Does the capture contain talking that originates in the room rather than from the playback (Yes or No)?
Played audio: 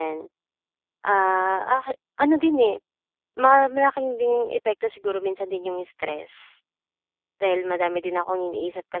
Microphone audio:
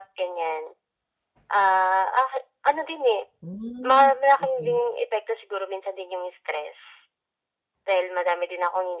Yes